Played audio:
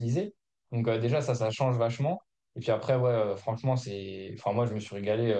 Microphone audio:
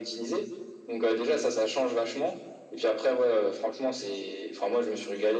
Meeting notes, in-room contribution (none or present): none